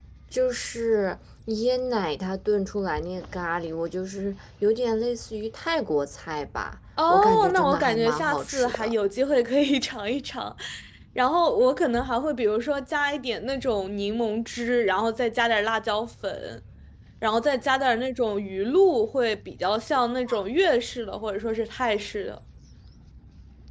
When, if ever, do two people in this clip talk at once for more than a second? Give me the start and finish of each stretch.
7.1-8.9

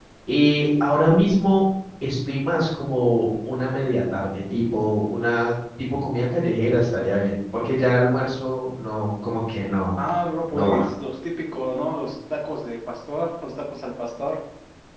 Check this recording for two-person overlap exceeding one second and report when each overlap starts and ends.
none

